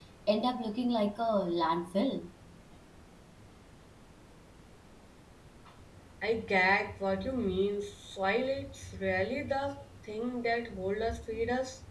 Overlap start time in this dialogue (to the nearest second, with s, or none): none